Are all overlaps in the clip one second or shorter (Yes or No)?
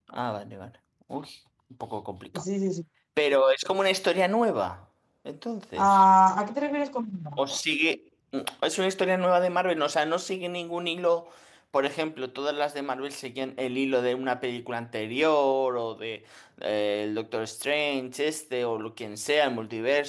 Yes